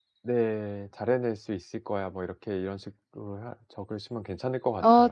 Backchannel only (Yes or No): No